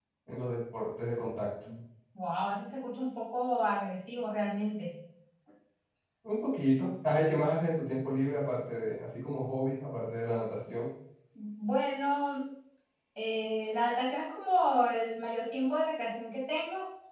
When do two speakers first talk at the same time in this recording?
none

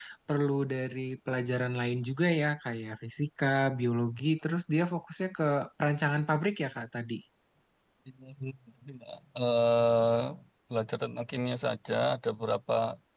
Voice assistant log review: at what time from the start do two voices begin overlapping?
none

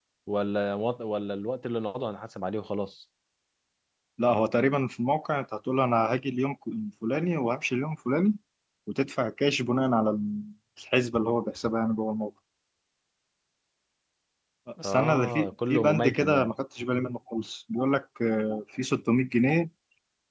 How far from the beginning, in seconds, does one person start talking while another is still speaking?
15 s

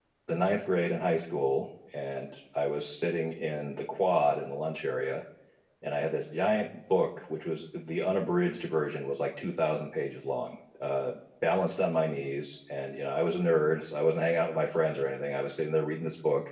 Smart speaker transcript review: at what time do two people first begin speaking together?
none

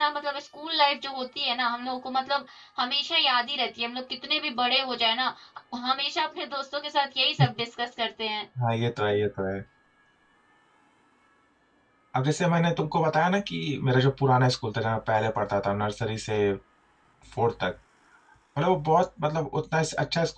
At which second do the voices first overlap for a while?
none

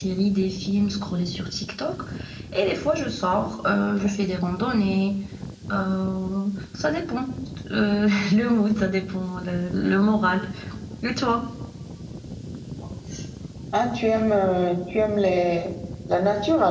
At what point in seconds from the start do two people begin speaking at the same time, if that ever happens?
none

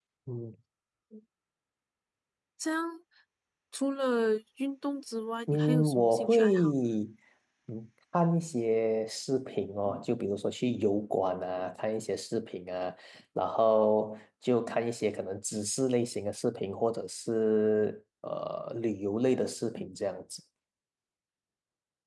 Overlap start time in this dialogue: 5 s

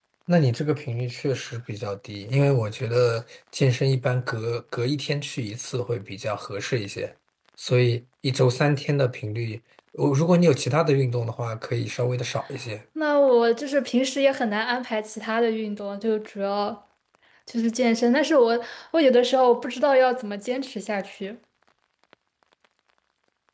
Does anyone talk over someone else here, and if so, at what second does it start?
none

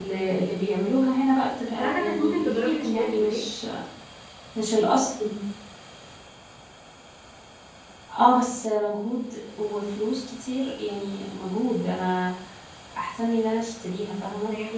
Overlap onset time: 2 s

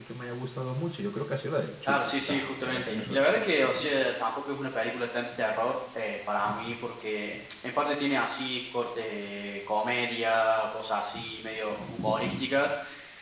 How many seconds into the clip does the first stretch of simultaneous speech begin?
2 s

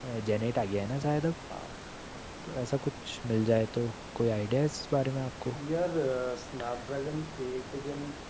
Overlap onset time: none

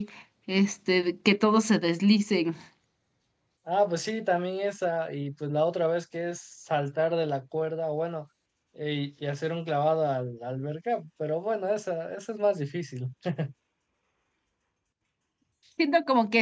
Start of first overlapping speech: none

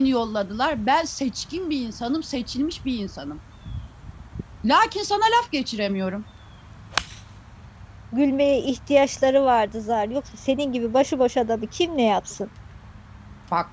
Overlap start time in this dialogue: none

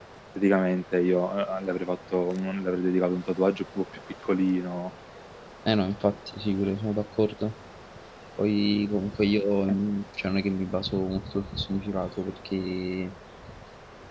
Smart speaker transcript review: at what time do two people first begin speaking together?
none

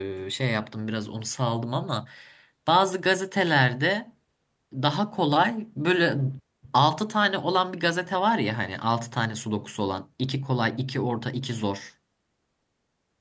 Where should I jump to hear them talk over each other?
none

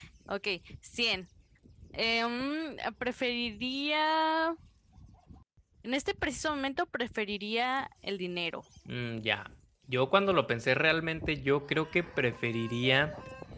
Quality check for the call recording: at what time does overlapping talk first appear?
none

